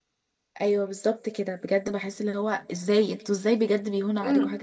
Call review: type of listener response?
taking over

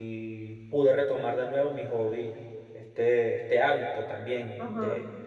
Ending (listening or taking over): taking over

